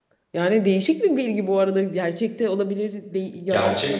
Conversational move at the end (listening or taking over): taking over